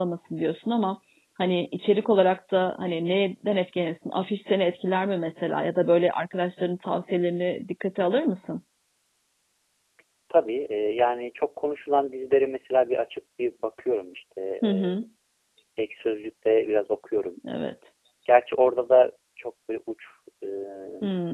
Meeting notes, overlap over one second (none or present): none